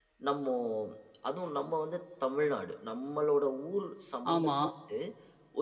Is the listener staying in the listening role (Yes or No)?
Yes